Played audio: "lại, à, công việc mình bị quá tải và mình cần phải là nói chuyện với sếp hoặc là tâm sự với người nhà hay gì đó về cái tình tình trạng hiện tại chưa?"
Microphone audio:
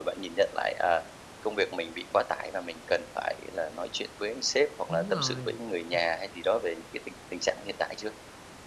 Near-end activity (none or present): present